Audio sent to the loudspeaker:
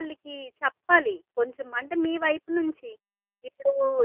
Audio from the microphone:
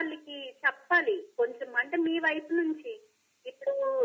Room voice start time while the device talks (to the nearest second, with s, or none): none